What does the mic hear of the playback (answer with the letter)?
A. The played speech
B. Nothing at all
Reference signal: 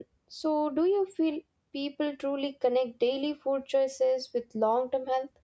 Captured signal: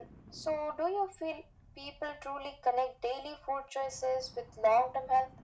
A